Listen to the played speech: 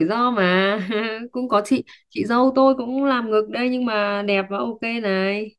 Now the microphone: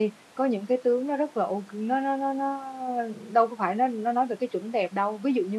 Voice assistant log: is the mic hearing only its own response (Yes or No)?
No